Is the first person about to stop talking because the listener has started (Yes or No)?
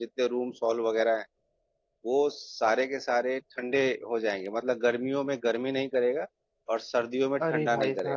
Yes